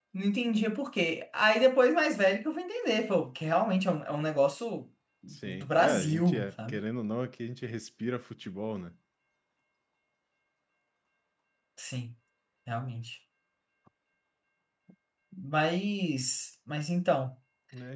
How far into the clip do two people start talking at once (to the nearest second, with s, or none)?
5 s